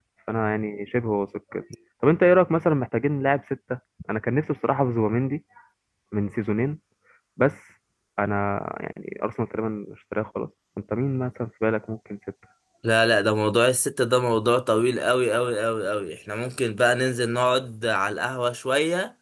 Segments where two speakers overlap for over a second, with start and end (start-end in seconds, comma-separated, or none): none